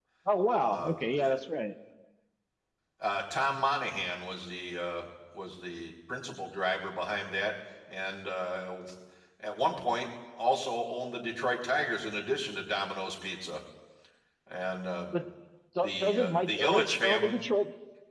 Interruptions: present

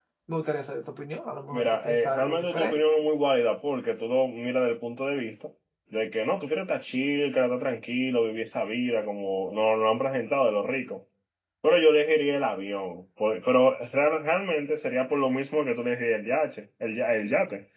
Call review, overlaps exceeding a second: present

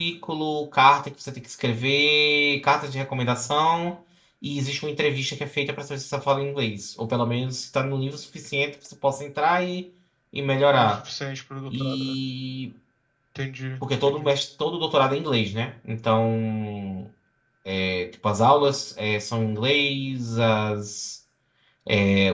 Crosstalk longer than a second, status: none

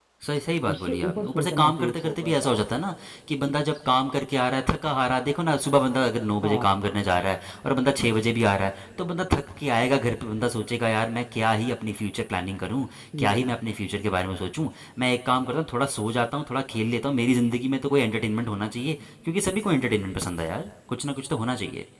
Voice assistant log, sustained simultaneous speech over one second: present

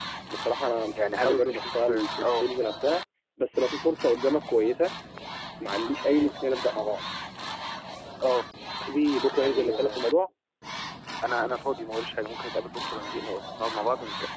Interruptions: present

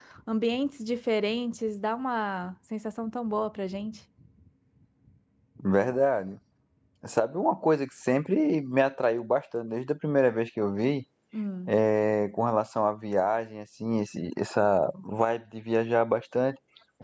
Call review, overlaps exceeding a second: none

